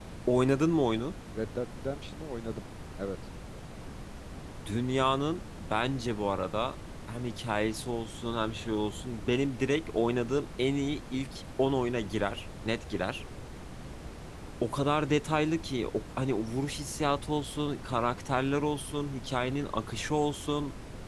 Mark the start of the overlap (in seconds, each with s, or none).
none